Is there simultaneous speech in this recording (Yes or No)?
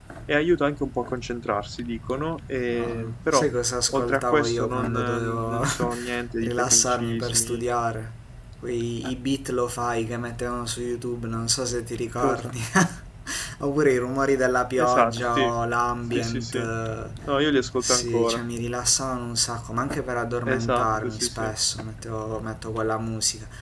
Yes